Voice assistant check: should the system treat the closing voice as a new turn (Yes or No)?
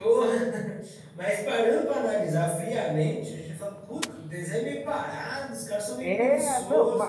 Yes